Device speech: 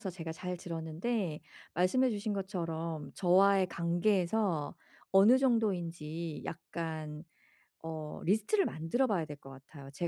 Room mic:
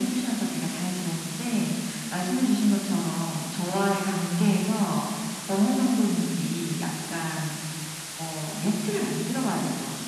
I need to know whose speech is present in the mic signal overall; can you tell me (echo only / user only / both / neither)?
echo only